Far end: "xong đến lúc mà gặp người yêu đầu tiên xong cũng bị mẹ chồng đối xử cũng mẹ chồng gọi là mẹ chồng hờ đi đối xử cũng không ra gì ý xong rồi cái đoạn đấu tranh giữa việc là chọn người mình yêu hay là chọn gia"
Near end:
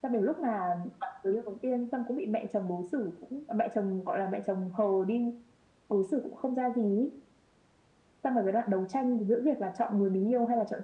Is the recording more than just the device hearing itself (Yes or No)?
No